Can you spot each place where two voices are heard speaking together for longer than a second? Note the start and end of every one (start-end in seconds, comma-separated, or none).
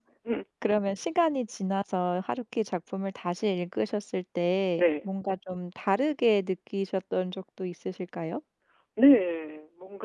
none